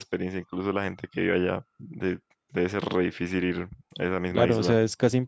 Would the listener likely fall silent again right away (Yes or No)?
No